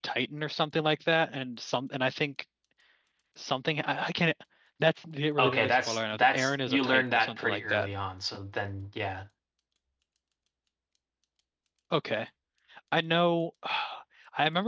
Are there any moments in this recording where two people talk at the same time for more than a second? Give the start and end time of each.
5.4-7.9

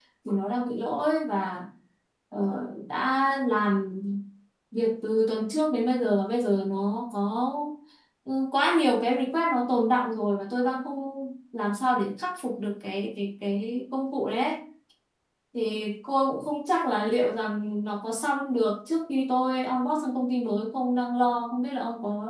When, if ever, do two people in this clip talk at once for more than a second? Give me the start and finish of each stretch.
none

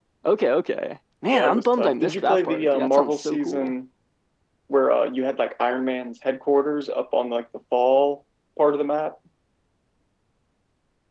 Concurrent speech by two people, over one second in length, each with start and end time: 1.3-3.7

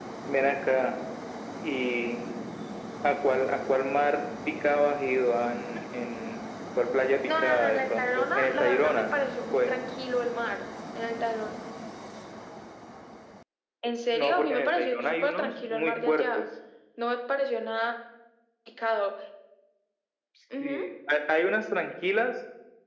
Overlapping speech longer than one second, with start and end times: 7.3-9.1, 14.1-16.5

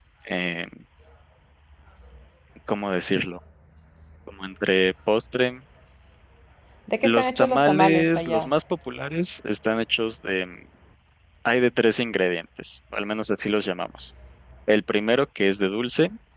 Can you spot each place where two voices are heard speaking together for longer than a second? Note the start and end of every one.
7.0-8.5

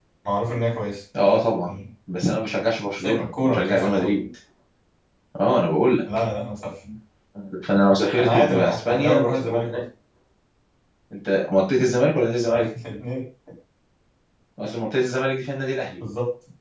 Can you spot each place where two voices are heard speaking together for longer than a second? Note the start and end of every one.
3.0-4.2, 8.2-9.8

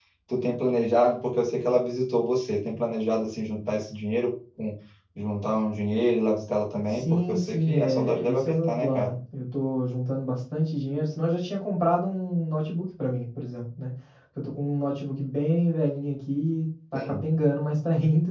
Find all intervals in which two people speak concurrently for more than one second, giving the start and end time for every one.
6.9-9.1

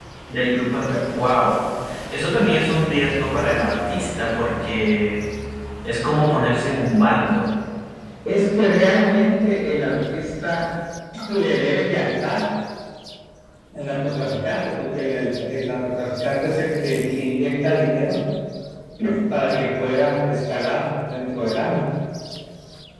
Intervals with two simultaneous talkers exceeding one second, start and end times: none

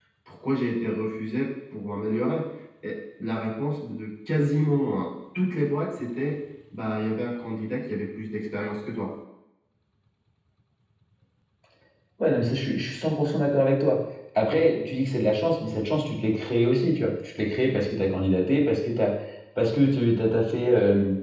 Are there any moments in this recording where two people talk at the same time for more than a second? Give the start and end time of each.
none

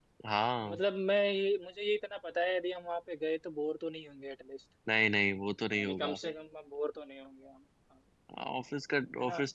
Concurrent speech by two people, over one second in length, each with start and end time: none

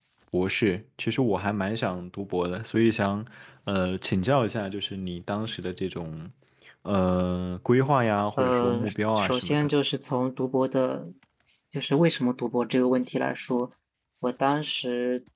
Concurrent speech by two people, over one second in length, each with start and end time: 8.4-9.7

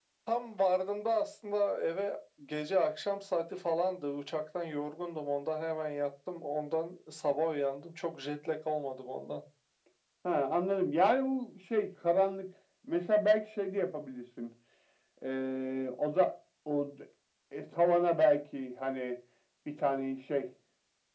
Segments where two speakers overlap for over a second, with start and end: none

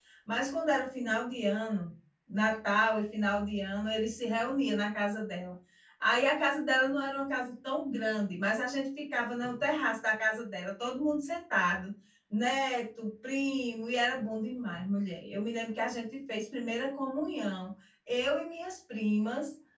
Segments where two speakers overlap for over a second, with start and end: none

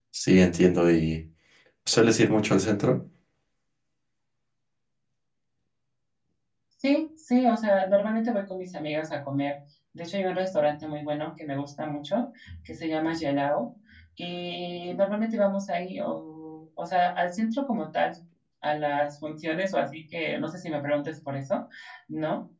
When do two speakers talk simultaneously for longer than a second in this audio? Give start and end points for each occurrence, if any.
none

